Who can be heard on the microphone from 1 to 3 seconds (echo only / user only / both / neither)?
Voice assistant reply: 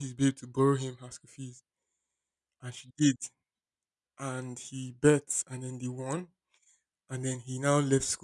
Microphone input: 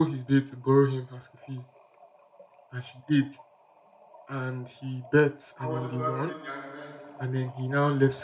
echo only